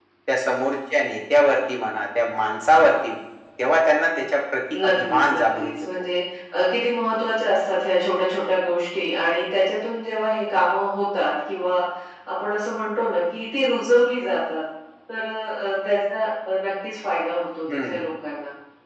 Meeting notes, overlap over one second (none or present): present